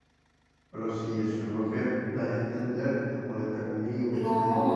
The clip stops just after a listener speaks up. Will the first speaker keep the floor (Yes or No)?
No